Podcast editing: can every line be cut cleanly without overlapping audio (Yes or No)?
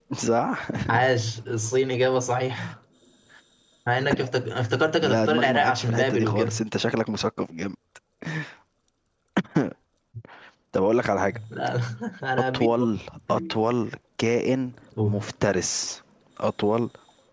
No